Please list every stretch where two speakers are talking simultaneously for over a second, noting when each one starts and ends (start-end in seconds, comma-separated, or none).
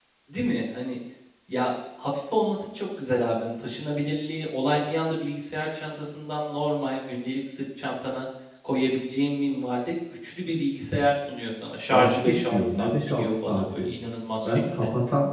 11.9-13.9